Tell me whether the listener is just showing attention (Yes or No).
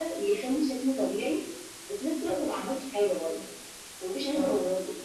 Yes